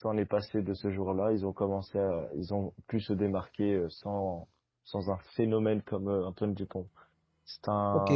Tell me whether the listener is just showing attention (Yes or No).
No